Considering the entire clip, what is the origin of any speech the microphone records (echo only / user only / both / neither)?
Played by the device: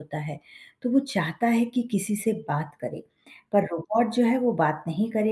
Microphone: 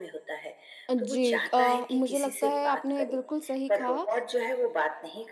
both